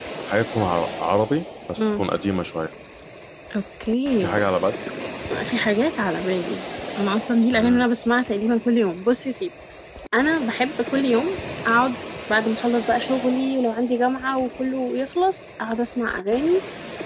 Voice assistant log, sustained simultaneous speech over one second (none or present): none